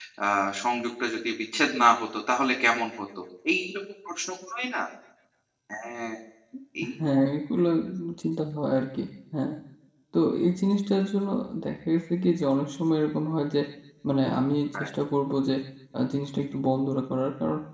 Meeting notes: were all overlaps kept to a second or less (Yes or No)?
Yes